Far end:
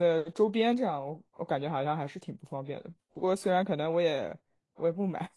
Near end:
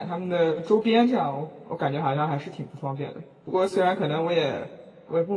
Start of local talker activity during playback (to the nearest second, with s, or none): none